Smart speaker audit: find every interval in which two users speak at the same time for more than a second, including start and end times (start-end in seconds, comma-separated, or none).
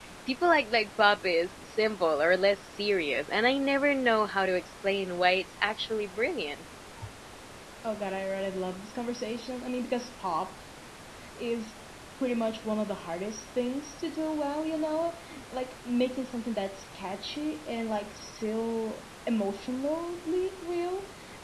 none